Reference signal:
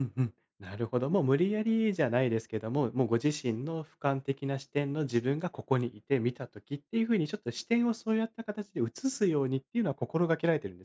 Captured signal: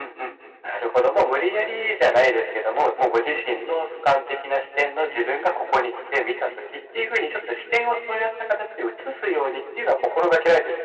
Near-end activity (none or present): none